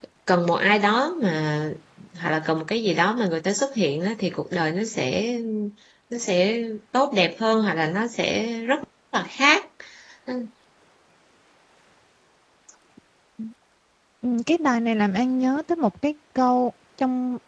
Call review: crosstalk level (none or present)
none